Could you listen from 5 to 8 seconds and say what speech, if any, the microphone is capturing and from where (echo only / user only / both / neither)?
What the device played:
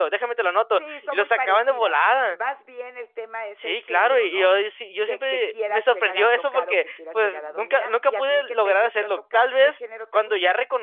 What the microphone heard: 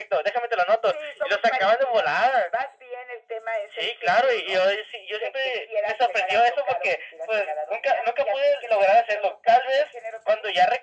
echo only